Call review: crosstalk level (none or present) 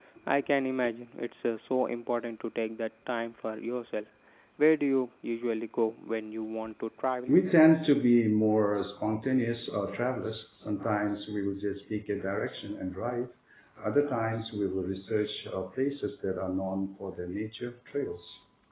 none